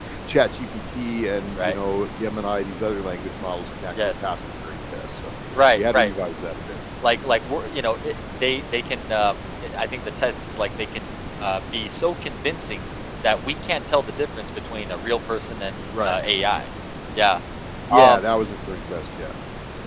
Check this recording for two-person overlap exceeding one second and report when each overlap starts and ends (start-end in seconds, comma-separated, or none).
none